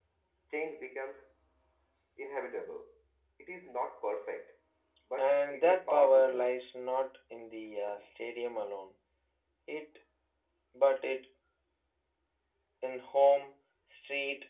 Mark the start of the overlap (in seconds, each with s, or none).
5.2 s